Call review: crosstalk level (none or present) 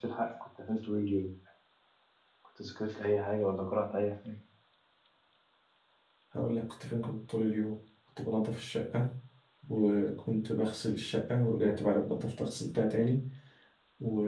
none